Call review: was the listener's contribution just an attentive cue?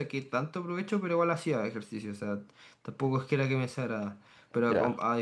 Yes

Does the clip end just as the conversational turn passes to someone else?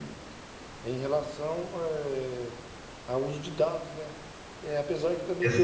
No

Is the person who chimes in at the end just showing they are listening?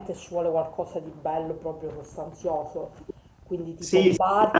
No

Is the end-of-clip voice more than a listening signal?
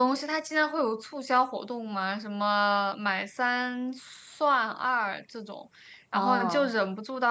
No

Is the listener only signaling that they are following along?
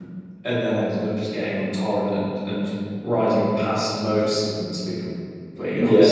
No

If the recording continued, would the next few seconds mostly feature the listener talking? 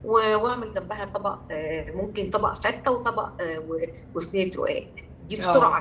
No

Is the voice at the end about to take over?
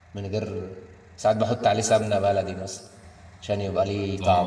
Yes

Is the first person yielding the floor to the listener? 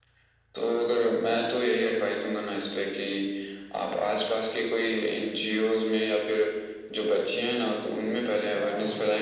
No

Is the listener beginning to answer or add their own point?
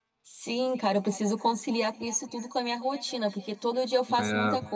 No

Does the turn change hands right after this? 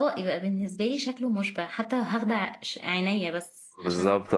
Yes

